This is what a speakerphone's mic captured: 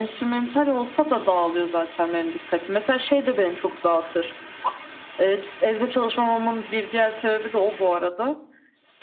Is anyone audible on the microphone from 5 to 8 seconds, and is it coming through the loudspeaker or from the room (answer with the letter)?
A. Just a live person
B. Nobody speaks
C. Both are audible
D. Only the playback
D